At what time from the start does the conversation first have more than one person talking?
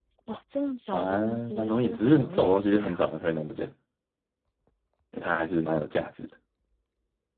0.9 s

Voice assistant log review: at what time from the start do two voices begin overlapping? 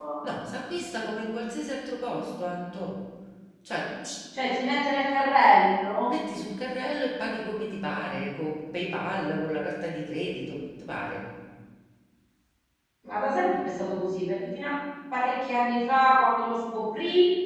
none

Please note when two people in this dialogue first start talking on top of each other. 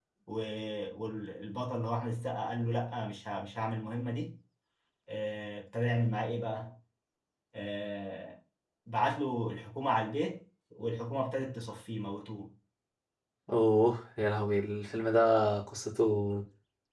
none

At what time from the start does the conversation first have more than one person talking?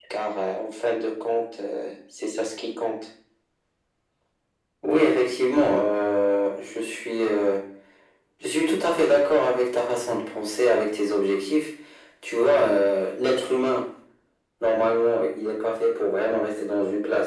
none

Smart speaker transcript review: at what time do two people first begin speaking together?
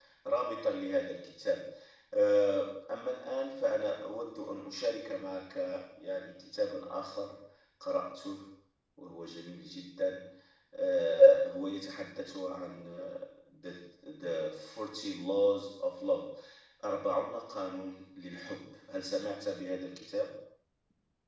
none

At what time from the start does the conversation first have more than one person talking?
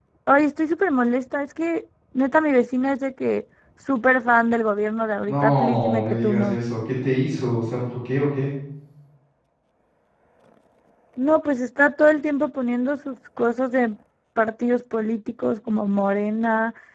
5.3 s

